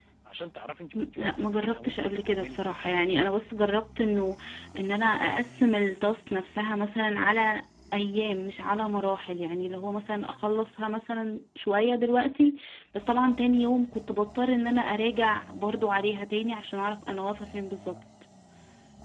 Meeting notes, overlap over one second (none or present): present